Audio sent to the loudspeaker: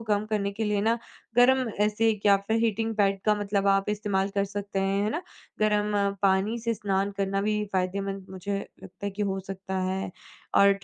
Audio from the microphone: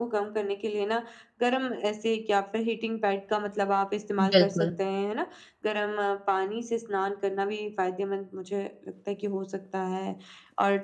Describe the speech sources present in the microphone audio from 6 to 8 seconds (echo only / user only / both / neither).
echo only